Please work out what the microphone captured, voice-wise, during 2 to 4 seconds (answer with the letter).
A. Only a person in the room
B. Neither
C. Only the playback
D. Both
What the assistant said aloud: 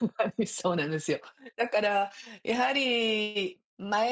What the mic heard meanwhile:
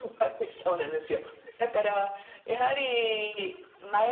C